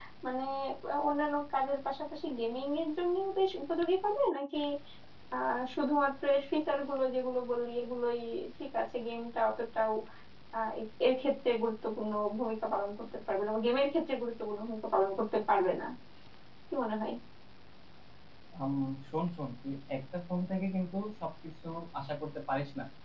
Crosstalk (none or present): none